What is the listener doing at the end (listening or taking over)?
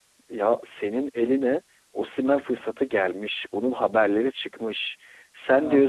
listening